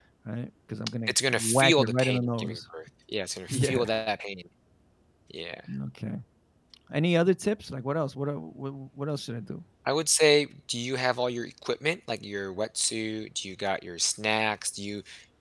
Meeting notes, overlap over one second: present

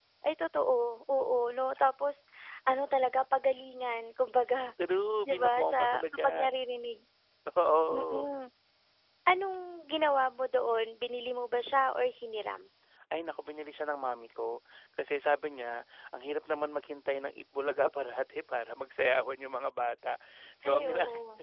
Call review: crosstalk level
present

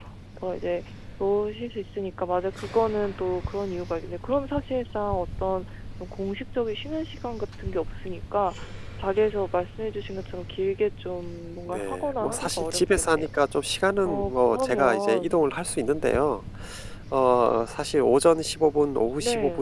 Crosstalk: present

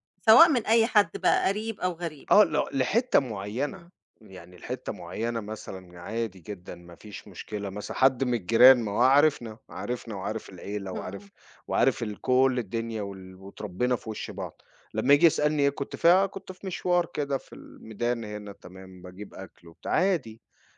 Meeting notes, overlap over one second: none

